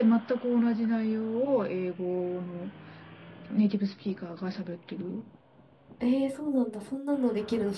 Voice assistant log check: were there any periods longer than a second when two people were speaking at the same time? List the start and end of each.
none

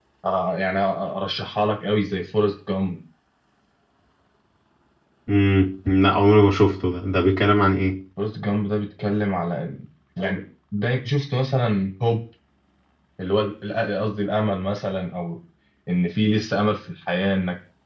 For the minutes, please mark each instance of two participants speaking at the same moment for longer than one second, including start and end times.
none

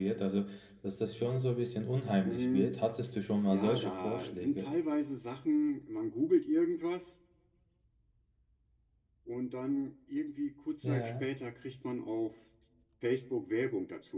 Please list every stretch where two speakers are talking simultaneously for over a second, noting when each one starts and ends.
3.5-4.7

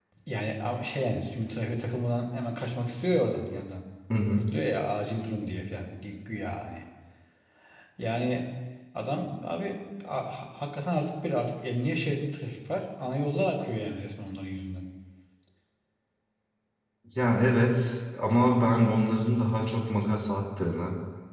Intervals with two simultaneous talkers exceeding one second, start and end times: none

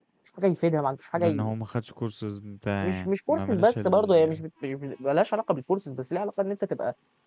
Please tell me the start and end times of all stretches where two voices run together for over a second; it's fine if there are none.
2.8-4.4

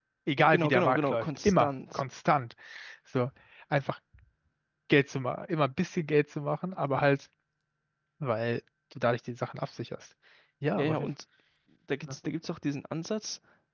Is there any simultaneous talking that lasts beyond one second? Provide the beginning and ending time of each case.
0.5-2.0

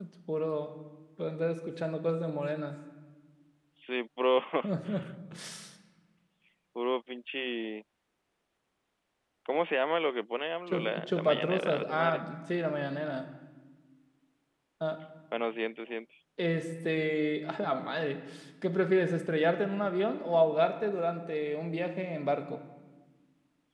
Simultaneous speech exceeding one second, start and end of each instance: 10.7-12.2

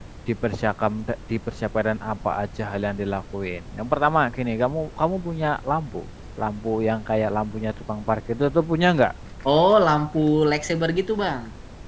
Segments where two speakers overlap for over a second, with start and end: none

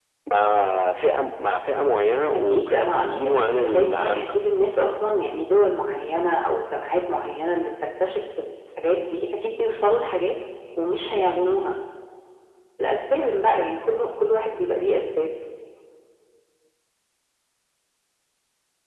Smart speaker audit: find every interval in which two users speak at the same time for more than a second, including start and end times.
2.3-4.2

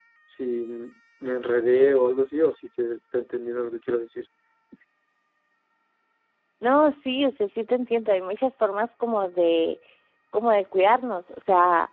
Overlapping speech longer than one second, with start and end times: none

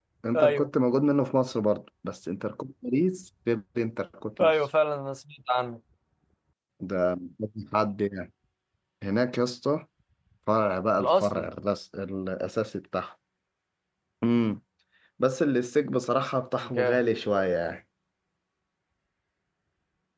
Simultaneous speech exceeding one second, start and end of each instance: none

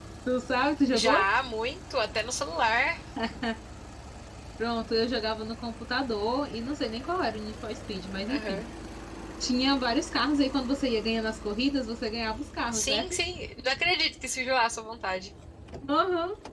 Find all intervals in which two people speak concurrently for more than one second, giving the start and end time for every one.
none

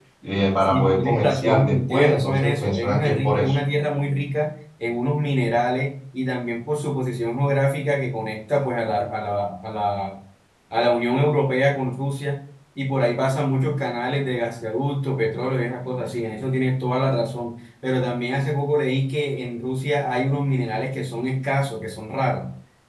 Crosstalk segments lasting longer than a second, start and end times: 0.7-3.5

